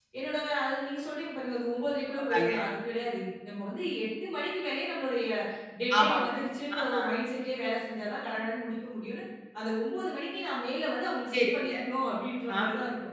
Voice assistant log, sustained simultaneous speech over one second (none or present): none